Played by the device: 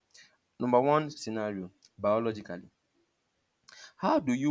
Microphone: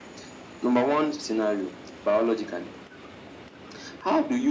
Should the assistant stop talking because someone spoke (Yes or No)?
No